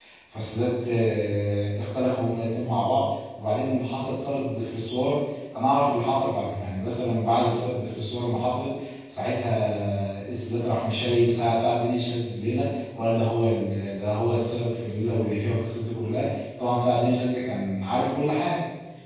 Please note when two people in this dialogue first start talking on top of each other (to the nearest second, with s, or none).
none